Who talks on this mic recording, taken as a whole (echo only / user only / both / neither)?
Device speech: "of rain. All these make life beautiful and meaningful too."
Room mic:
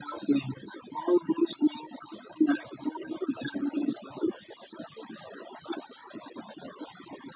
echo only